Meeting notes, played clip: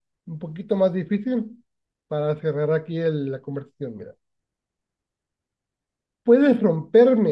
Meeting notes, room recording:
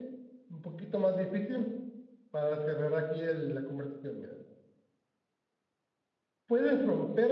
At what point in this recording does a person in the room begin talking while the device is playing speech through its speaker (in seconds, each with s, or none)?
none